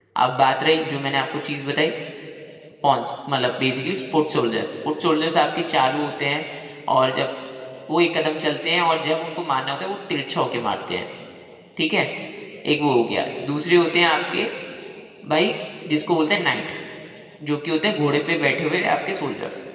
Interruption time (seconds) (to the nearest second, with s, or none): none